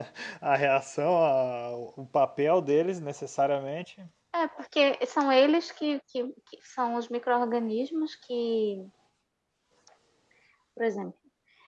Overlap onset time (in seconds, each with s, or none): none